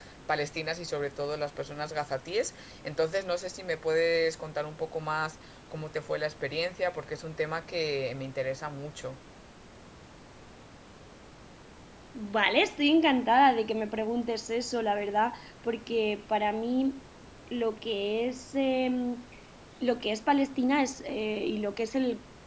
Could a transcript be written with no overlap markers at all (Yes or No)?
Yes